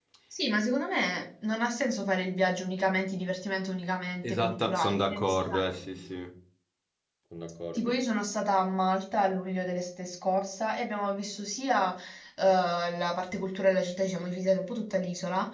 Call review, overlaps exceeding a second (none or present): present